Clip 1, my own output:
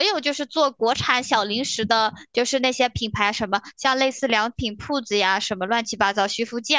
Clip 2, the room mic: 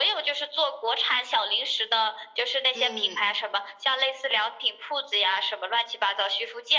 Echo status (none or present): present